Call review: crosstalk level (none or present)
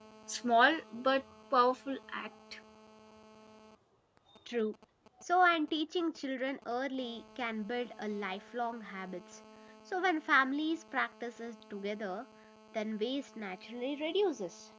none